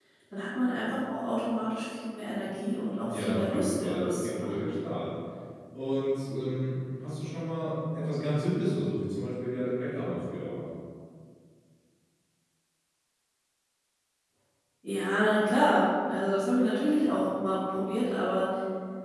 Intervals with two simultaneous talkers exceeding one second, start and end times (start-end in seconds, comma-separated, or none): 3.0-4.7